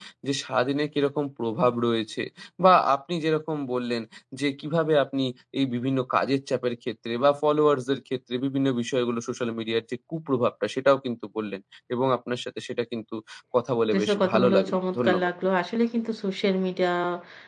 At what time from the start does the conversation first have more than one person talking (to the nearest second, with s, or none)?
14 s